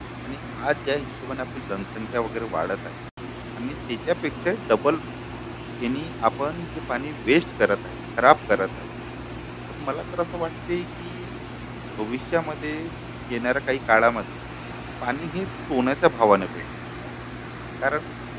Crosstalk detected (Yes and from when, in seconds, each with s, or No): No